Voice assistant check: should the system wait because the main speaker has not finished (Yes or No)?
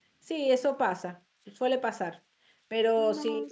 Yes